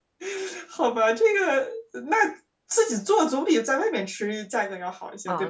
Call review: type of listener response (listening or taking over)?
taking over